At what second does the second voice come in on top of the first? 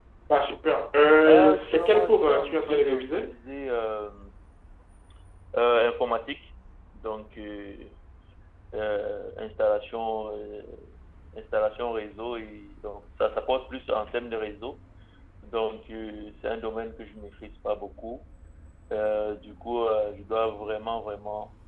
1.2 s

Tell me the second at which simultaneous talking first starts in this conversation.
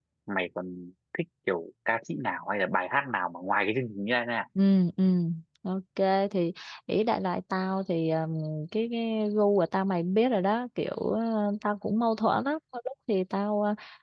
none

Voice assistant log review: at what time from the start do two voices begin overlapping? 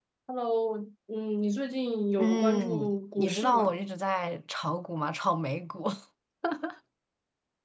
2.2 s

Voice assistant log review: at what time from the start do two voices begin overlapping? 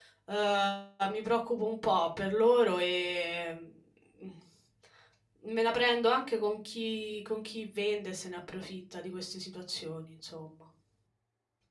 none

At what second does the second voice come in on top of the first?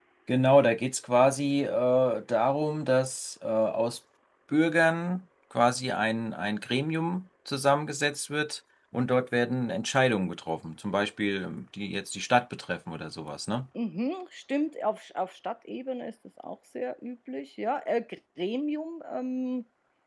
none

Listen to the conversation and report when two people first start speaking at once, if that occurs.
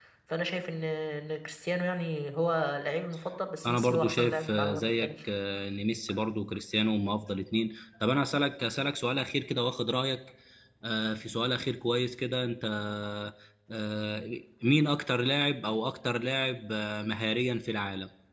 3.6 s

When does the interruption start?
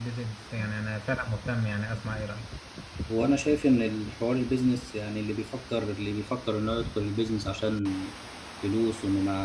none

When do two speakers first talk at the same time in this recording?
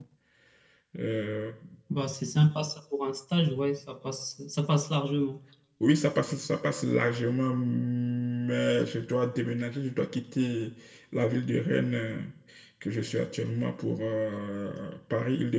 none

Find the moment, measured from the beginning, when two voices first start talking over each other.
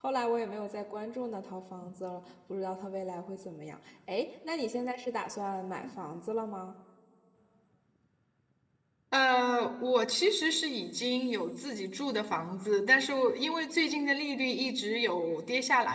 none

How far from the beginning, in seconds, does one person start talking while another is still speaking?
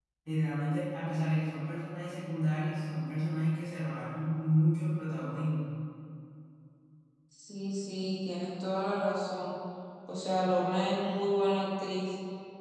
none

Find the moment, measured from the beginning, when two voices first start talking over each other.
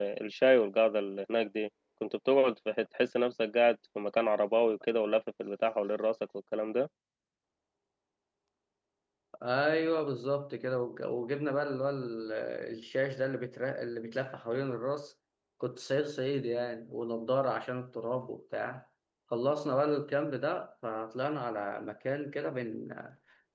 none

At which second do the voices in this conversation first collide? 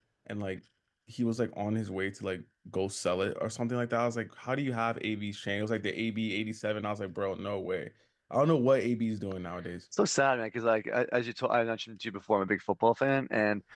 none

